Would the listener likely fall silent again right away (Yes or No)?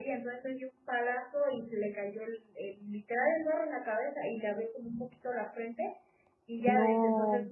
Yes